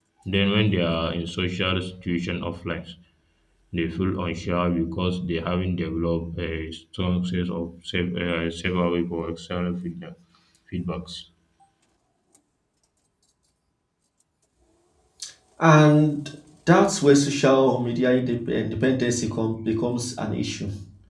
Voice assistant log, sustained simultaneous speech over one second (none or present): none